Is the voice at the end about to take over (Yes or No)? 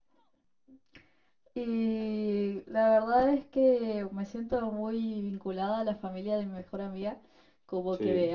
No